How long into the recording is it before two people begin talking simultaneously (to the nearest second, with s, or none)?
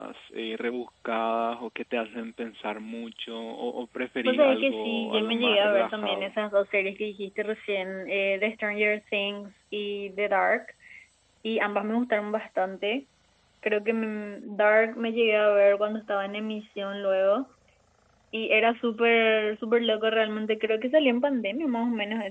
4 s